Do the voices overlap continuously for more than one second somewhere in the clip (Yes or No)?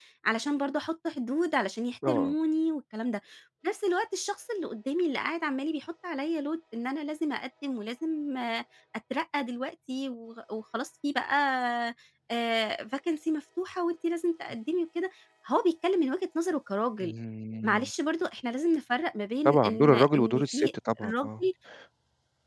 Yes